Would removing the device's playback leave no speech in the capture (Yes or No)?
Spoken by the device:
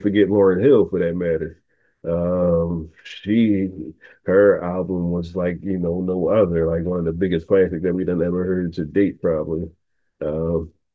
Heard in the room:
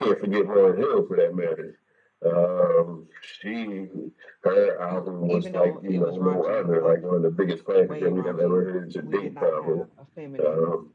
No